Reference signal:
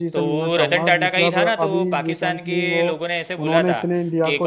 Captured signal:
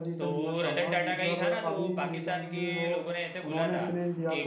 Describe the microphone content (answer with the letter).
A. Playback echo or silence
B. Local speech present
A